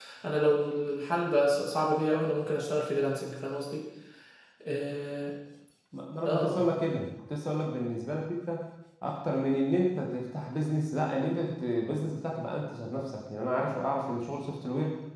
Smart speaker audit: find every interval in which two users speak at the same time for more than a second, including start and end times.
none

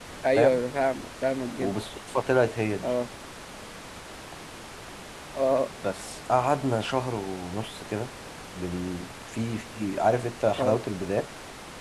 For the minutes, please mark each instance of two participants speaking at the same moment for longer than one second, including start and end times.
none

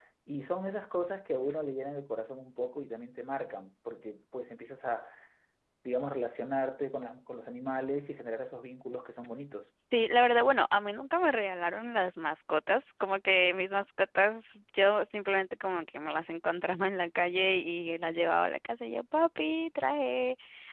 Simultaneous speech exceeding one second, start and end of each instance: none

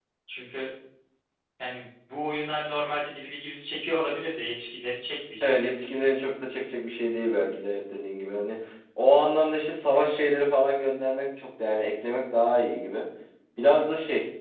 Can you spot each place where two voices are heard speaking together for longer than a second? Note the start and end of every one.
none

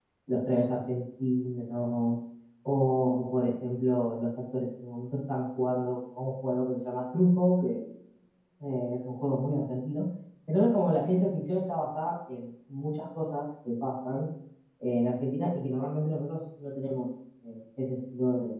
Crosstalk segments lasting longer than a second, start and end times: none

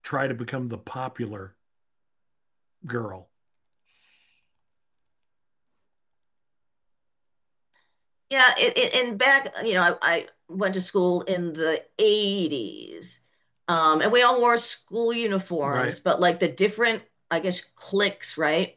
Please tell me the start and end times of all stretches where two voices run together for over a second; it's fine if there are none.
none

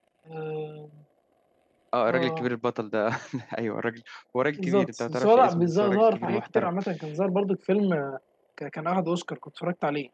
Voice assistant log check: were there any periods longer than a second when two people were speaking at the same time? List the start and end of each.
4.6-6.7

